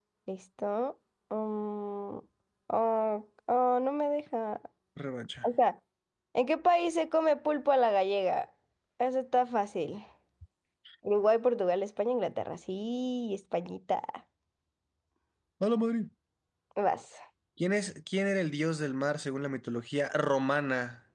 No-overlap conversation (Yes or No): Yes